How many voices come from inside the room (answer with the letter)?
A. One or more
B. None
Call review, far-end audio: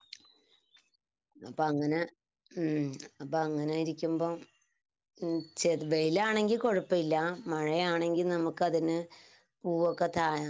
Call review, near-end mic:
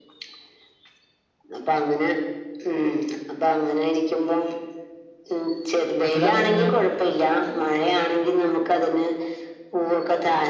A